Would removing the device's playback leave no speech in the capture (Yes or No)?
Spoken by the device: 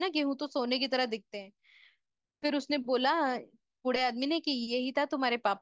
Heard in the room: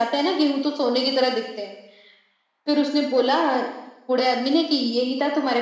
Yes